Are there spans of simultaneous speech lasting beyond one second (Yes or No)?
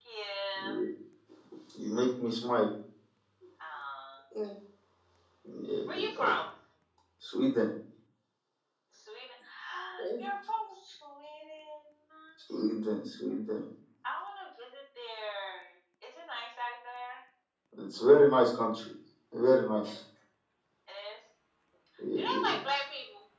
No